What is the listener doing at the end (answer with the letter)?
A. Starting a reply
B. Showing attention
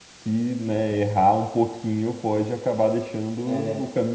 A